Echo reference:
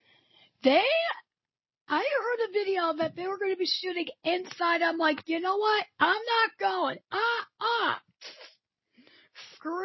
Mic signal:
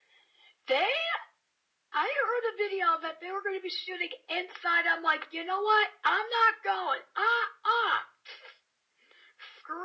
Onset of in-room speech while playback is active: none

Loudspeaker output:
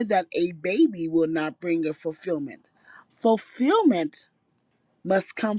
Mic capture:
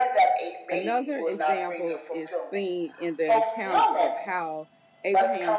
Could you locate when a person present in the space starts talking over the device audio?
0.7 s

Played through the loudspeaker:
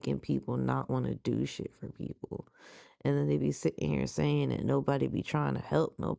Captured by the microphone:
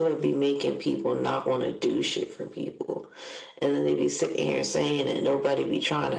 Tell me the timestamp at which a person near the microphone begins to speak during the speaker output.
none

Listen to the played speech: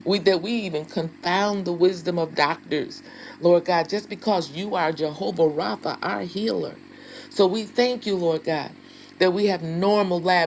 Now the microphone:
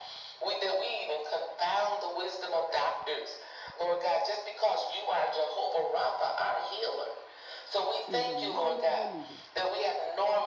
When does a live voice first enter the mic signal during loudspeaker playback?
8.1 s

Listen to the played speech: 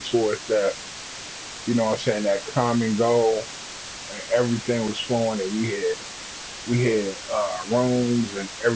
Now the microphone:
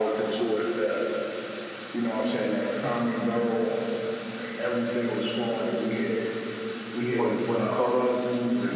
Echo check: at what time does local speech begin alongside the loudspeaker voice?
7.1 s

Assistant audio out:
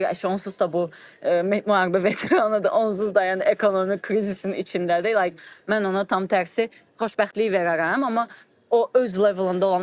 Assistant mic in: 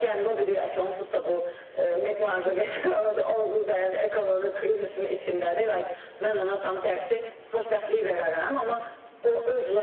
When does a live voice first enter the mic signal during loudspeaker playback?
none

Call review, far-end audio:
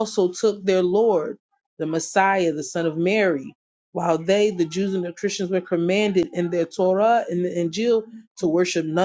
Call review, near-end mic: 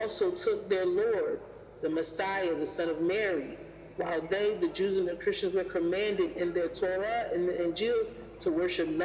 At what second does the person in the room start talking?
none

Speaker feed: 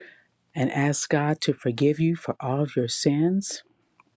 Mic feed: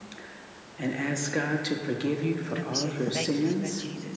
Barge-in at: 2.6 s

